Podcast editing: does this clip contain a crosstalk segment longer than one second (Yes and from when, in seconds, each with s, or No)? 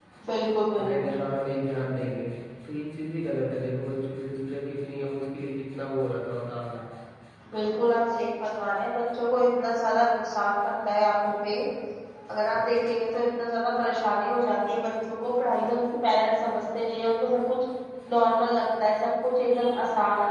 No